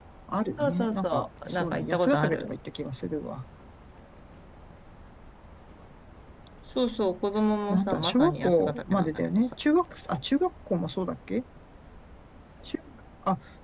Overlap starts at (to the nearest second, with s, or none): 1 s